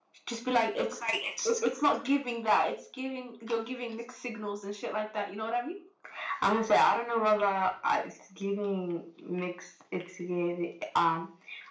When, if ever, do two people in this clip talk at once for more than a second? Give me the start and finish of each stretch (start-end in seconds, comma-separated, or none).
none